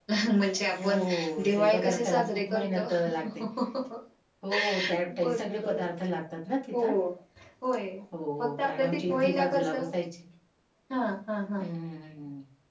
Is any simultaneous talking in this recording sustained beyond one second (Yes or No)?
Yes